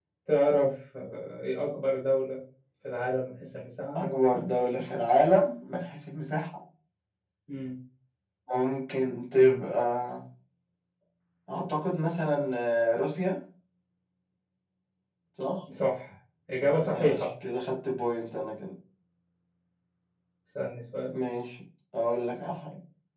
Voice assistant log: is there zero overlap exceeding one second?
Yes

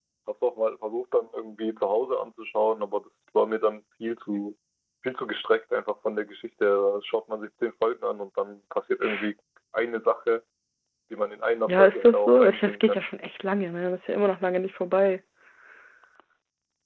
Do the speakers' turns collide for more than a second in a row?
Yes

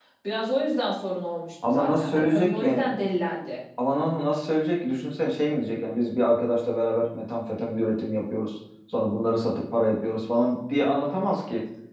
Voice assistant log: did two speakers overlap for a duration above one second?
Yes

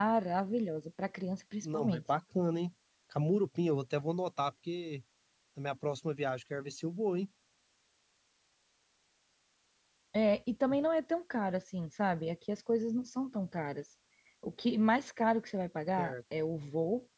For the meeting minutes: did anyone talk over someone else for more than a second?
No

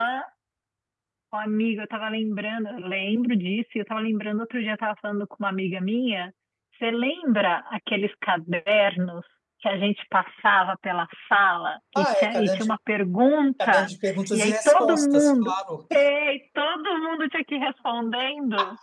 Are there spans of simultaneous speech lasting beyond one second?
Yes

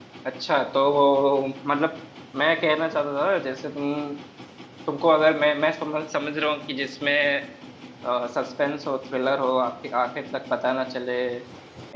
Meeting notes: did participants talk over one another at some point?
No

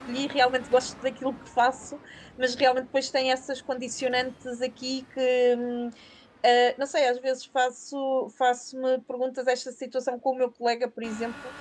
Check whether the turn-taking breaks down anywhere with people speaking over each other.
No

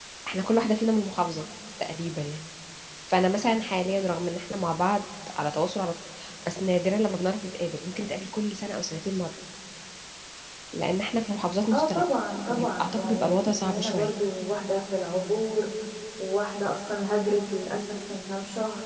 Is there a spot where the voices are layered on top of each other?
Yes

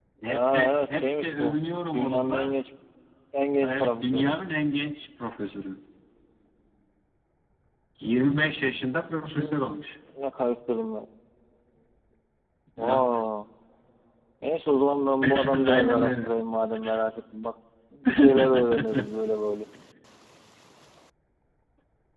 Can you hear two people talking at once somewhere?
Yes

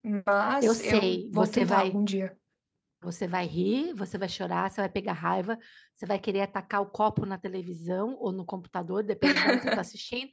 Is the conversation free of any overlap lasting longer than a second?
No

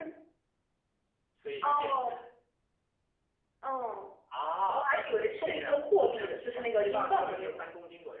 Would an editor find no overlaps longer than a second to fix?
No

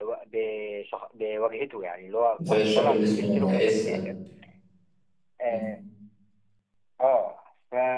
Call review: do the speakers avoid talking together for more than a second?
No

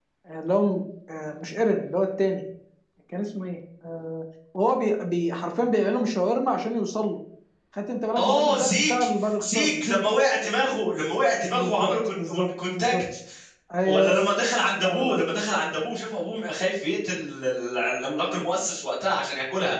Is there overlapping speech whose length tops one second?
Yes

